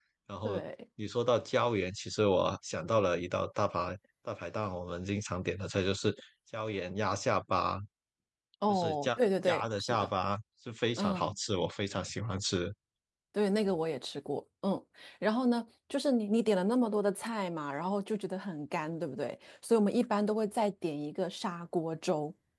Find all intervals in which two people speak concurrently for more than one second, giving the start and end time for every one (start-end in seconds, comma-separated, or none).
8.7-10.1